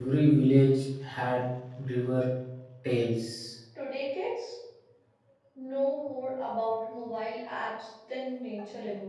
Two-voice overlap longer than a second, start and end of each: none

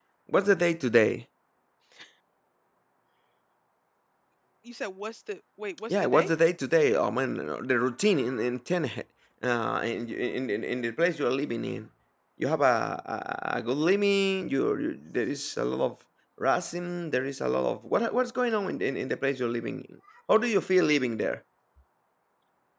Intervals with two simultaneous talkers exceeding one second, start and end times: none

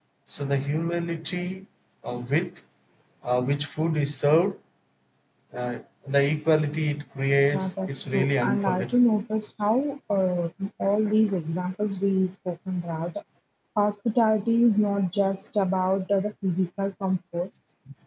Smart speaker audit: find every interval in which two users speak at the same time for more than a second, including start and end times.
7.5-9.0

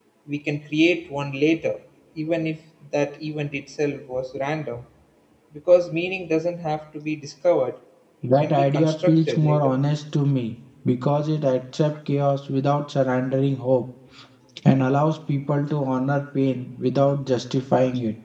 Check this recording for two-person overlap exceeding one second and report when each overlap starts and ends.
8.4-9.8

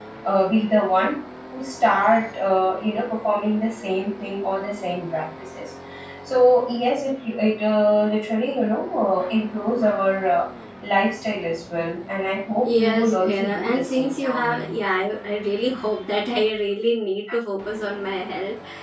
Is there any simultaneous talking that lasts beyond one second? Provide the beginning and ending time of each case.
12.7-14.8

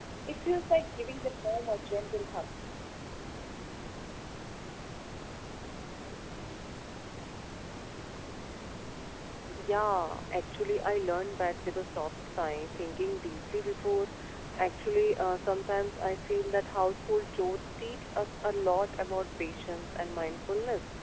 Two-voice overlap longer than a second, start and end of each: none

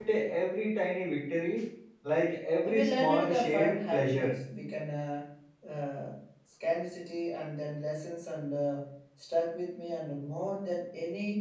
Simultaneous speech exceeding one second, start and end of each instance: 2.6-4.3

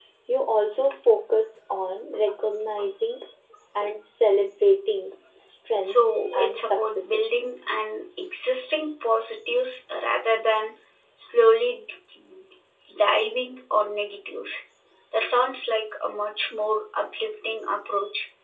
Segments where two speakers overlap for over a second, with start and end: 5.8-7.4

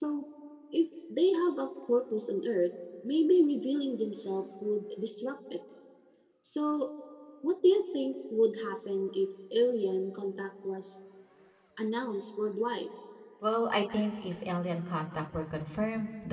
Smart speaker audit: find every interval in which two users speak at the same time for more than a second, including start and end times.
none

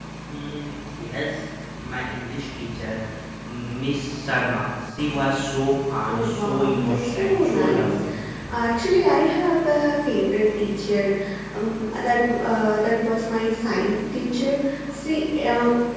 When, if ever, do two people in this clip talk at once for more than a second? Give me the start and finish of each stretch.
6.1-7.9

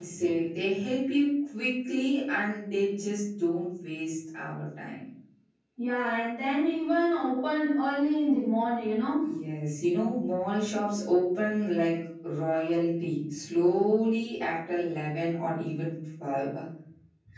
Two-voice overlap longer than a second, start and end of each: none

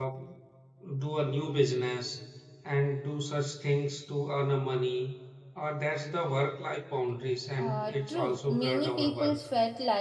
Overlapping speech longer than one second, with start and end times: 7.6-9.4

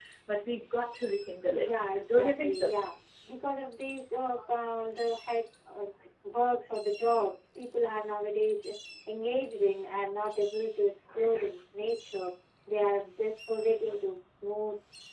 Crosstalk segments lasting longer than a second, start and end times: 1.5-2.7

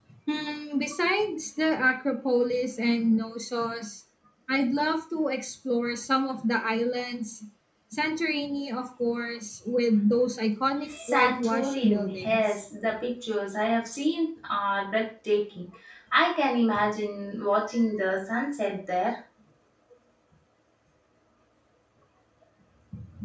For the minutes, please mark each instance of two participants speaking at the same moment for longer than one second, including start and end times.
11.1-12.6

